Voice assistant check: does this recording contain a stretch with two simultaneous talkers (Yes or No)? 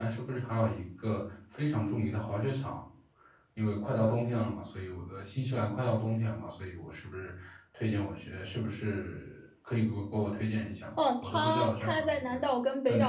Yes